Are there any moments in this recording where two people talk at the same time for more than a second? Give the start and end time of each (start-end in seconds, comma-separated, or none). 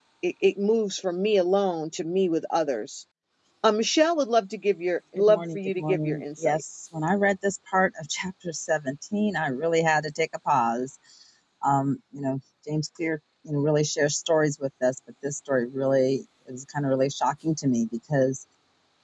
5.2-6.6